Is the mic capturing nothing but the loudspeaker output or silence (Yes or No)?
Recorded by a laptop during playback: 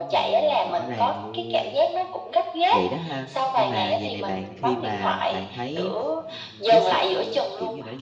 No